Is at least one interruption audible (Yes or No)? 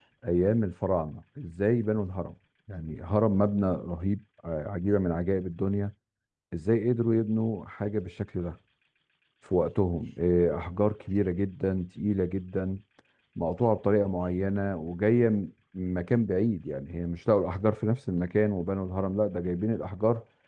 No